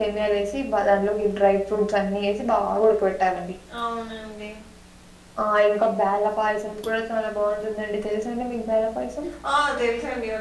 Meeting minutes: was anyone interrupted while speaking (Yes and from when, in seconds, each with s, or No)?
No